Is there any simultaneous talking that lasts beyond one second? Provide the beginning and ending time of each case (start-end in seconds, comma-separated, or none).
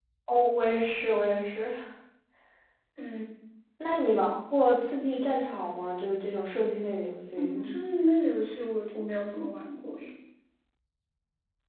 none